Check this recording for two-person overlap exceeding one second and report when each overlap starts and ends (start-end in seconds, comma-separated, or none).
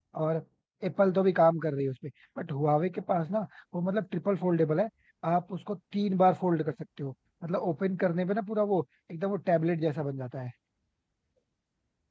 none